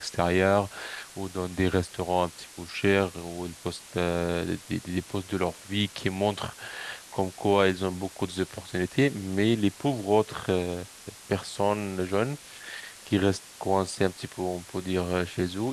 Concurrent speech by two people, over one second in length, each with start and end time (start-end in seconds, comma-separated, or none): none